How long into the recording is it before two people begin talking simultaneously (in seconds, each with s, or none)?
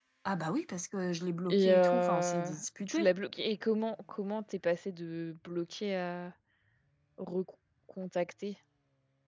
1.5 s